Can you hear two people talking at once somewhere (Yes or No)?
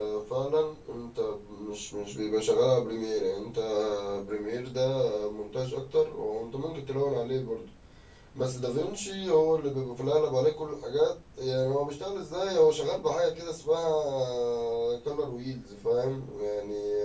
No